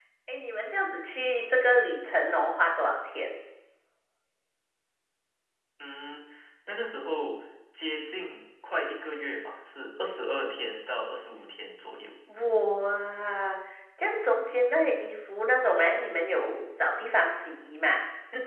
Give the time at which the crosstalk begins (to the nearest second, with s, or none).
none